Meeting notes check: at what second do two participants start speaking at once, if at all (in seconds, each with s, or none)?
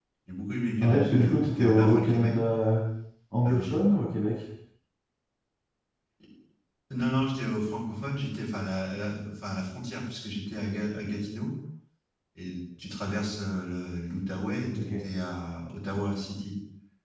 0.8 s